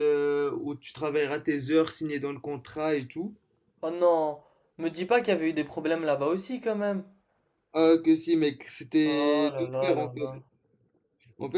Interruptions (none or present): present